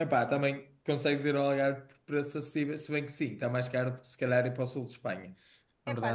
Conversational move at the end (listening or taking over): taking over